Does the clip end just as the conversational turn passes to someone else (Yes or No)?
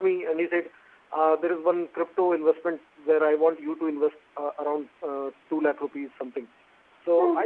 No